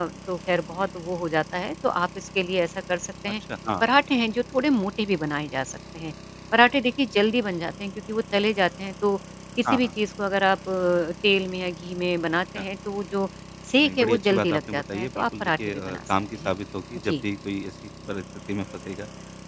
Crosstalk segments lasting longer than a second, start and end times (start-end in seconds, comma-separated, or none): 13.8-16.5